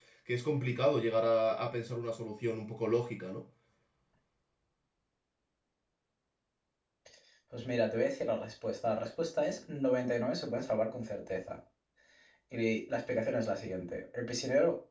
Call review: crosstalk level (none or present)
none